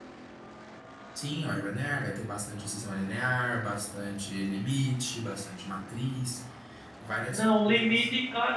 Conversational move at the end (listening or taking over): taking over